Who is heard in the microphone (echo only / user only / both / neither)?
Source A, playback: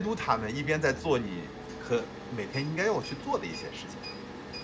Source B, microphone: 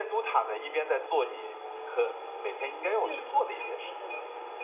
both